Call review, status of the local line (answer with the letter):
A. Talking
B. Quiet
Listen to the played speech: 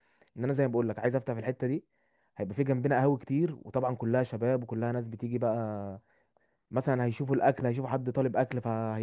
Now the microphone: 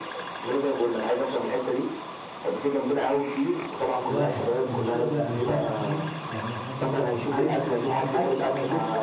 A